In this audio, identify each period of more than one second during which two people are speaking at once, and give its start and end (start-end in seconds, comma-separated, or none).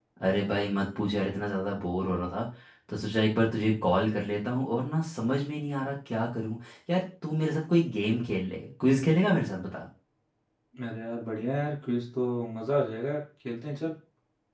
none